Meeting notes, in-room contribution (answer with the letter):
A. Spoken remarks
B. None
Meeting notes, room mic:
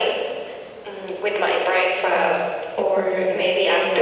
A